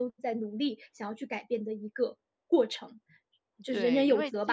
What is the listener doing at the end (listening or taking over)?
taking over